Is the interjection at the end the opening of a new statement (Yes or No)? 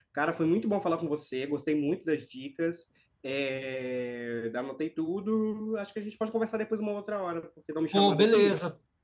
Yes